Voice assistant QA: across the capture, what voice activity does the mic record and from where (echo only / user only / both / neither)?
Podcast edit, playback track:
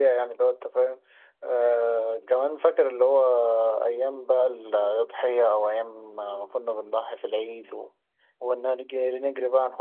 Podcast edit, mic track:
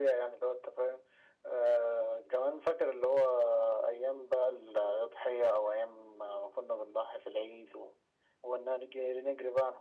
echo only